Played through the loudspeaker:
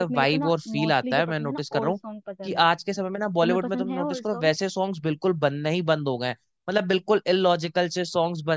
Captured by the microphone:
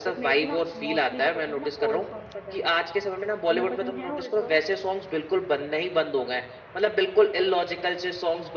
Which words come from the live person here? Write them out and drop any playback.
none

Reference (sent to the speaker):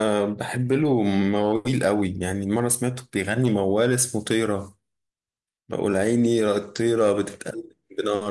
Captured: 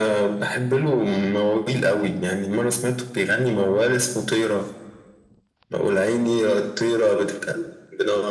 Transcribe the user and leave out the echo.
none

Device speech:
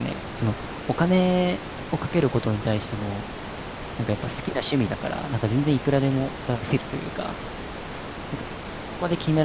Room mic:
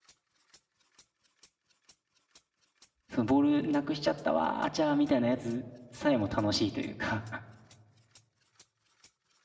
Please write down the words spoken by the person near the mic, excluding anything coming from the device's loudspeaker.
そのボールなくしちゃったわ、あちゃーみたいなやつさえも楽しいというか

